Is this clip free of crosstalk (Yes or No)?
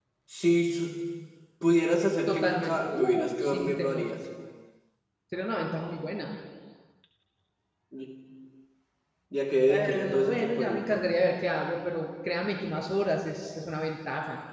No